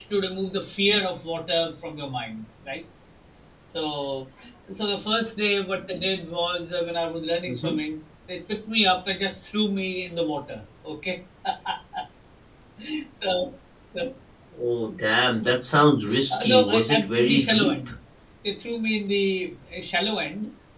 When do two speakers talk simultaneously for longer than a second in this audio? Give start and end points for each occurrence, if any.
16.3-17.9

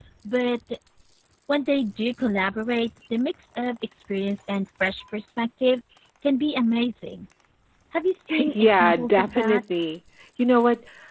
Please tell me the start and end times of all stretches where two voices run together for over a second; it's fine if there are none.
8.4-9.6

